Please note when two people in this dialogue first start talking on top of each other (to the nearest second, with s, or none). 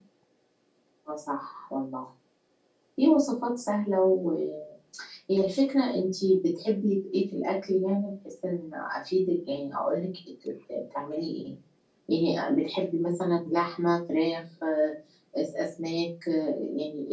none